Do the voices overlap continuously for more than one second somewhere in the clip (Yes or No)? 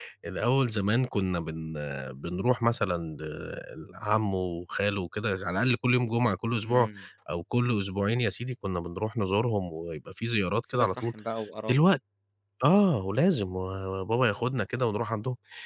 No